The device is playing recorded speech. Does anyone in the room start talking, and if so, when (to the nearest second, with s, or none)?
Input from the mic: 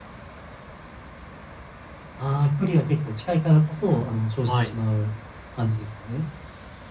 4 s